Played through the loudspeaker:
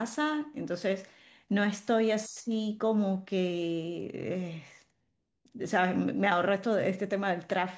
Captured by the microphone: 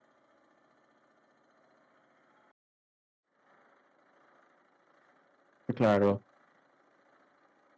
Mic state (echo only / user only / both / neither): user only